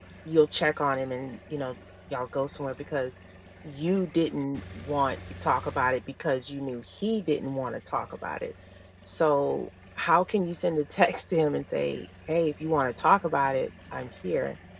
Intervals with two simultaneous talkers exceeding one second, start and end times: none

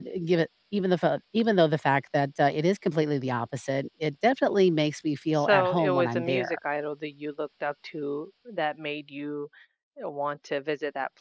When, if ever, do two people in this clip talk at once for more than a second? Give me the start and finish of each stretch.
5.3-6.6

